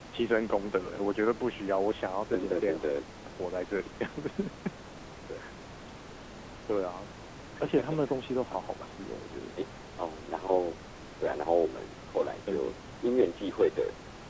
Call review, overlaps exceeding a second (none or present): present